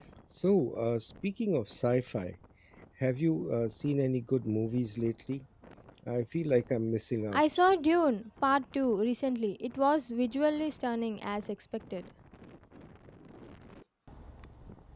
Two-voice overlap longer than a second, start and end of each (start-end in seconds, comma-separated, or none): none